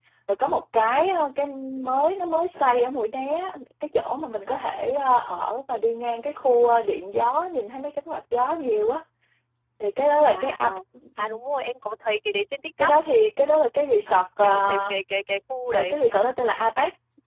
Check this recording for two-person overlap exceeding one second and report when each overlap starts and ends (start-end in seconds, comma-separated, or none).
none